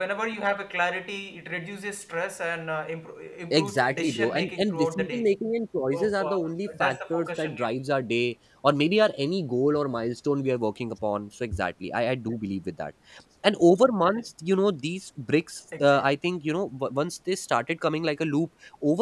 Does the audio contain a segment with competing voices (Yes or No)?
Yes